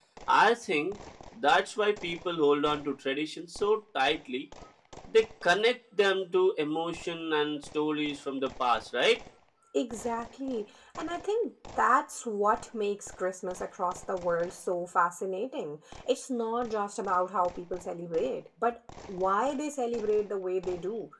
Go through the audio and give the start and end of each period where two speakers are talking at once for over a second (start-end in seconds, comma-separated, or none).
none